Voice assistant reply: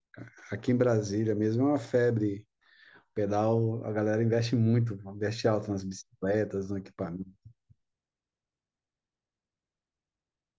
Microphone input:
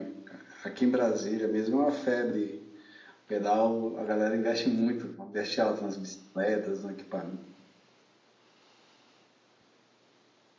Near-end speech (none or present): none